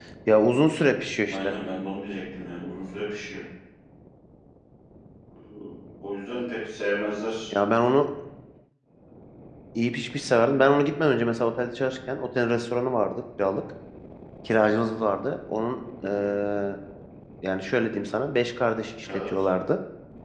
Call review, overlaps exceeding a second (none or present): none